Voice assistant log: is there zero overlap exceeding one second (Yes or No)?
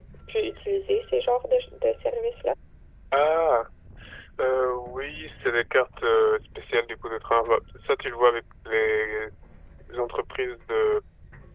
Yes